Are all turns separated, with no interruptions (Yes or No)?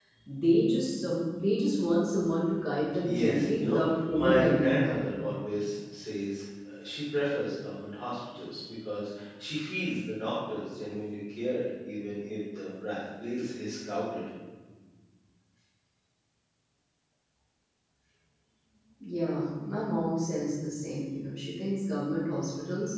No